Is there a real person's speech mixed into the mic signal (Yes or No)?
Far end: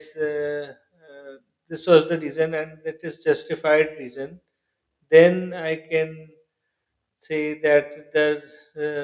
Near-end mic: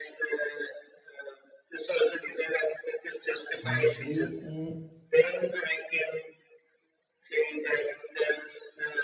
Yes